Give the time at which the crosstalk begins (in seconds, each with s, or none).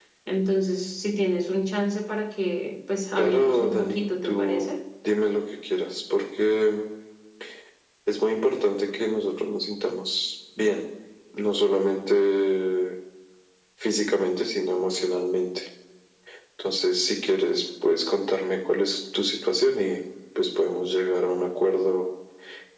3.2 s